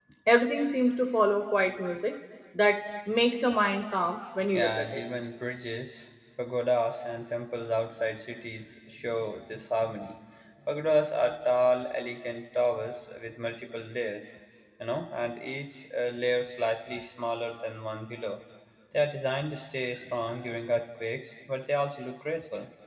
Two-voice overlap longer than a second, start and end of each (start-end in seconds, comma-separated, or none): none